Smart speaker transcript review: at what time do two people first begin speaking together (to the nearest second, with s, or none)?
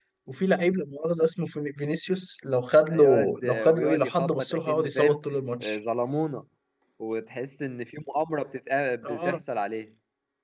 3 s